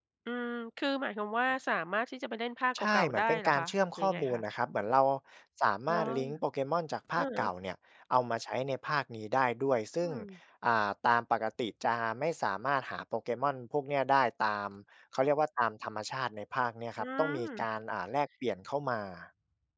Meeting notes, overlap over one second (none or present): present